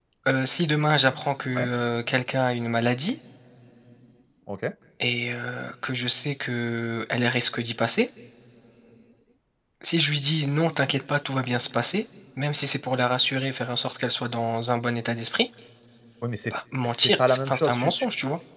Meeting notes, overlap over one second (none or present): present